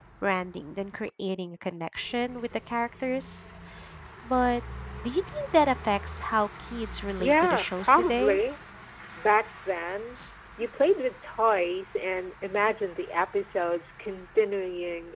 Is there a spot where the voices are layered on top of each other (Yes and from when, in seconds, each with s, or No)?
Yes, from 7.2 s